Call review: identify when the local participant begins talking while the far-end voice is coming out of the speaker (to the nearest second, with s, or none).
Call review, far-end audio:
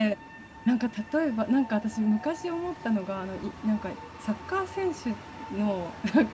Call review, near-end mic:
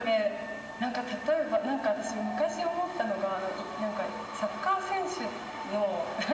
none